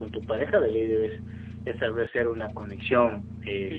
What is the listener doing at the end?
taking over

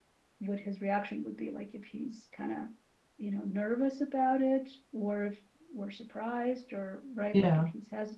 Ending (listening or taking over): listening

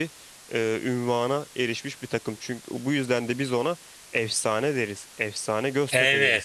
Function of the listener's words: taking over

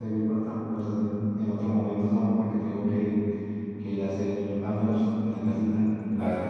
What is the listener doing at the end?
taking over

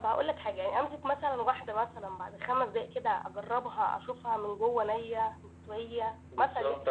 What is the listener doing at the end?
taking over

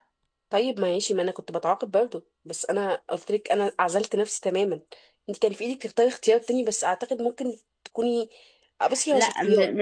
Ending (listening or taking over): taking over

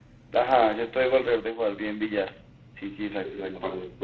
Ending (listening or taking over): taking over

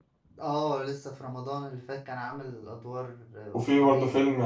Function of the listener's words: taking over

